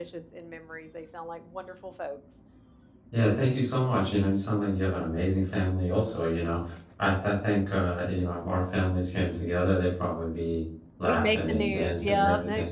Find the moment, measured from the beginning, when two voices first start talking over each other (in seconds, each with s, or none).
11.0 s